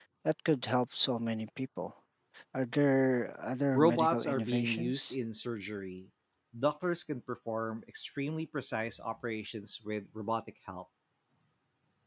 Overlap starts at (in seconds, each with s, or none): 3.8 s